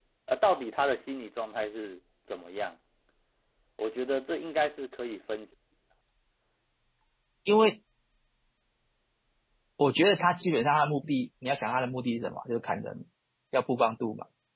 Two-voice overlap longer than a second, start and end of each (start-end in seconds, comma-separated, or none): none